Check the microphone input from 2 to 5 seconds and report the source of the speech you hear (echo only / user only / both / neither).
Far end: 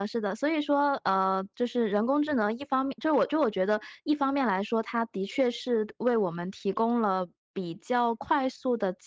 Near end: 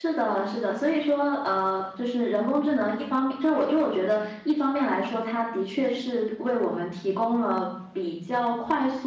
echo only